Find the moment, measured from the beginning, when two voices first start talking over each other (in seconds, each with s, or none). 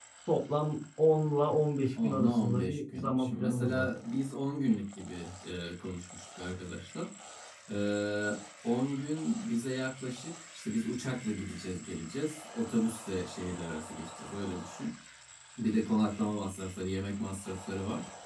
1.9 s